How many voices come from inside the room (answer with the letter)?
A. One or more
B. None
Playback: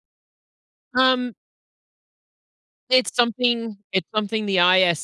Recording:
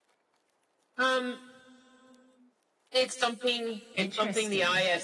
A